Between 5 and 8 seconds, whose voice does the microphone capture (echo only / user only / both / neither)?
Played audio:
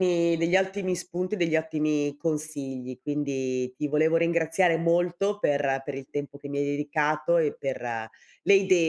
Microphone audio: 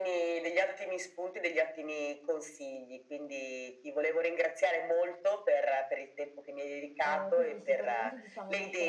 both